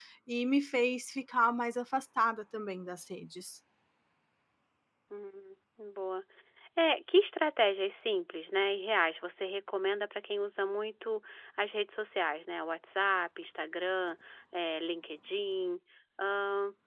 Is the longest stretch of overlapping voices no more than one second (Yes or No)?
Yes